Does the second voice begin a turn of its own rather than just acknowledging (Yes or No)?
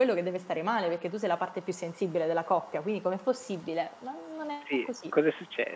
Yes